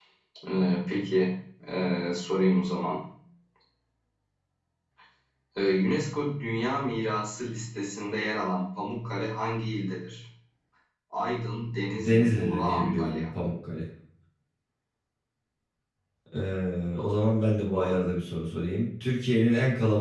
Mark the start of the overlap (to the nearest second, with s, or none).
12 s